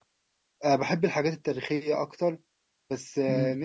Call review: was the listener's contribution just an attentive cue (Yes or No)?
Yes